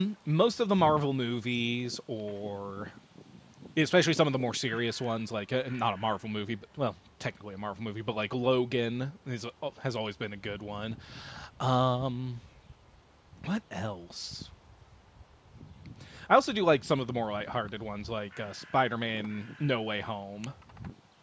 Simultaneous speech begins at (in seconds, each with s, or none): none